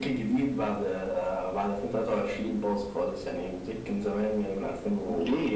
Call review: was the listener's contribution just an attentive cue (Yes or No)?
No